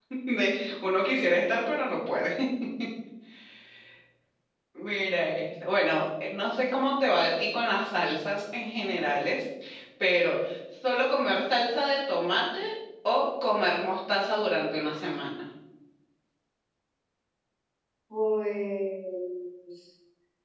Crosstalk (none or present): none